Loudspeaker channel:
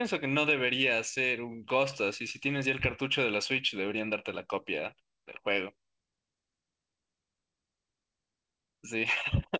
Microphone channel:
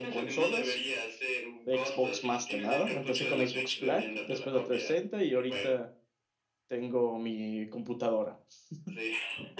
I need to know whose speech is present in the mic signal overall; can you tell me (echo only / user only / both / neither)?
both